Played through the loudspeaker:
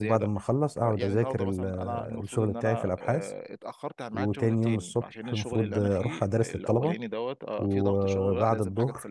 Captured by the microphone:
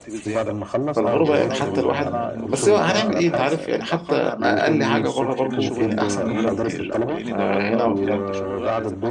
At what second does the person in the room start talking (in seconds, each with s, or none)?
0.9 s